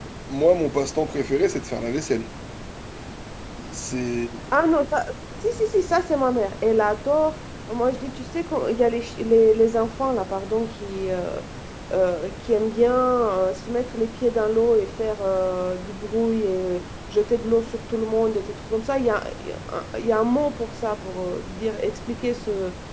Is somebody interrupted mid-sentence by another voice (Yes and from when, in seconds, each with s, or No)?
No